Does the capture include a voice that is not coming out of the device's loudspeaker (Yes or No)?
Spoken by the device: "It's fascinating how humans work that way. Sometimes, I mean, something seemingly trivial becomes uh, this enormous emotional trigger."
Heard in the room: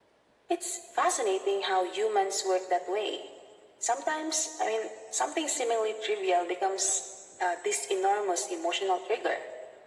No